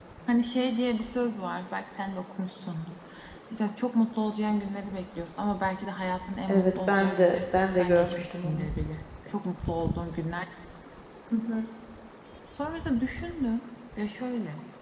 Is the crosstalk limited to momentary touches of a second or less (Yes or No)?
No